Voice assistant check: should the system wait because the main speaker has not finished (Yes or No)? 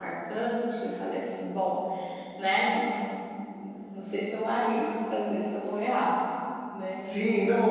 No